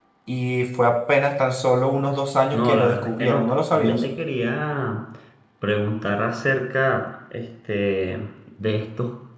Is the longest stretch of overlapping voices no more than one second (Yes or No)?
No